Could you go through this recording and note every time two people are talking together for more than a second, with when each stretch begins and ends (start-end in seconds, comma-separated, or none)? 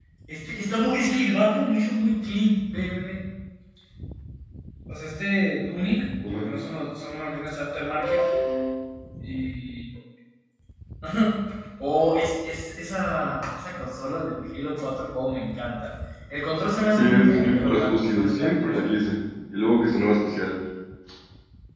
17.0-18.7